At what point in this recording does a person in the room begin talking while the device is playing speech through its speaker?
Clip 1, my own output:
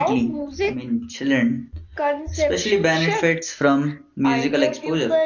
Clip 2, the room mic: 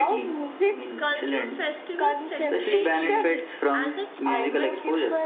0.9 s

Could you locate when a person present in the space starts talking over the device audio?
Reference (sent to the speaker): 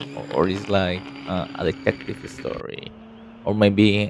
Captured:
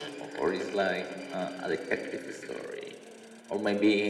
none

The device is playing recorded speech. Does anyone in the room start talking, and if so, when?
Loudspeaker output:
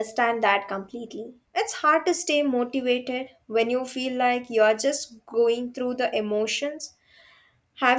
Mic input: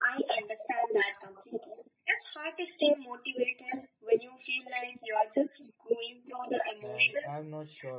6.8 s

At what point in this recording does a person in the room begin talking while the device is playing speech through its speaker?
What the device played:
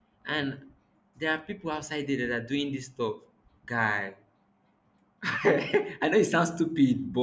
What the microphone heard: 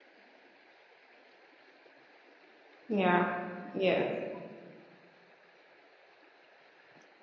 2.9 s

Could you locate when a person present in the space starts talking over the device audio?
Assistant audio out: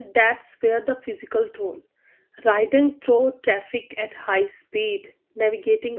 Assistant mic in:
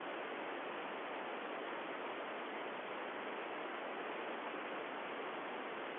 none

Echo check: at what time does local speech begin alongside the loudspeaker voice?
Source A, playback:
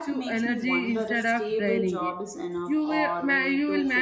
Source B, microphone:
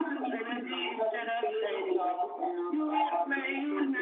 none

